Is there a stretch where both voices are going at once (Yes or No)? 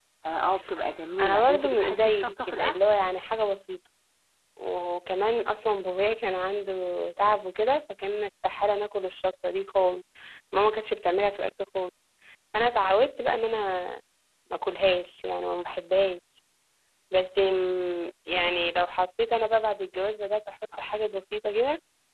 Yes